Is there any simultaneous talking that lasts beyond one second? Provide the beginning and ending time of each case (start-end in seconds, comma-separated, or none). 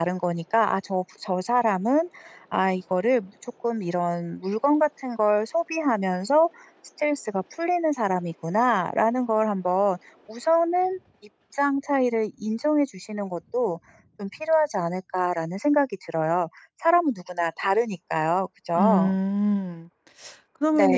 none